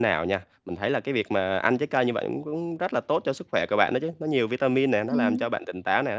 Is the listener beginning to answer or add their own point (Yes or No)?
No